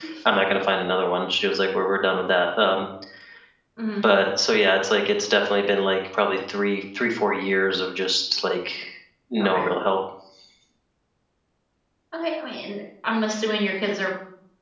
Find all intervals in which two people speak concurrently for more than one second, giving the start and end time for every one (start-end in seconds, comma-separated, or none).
none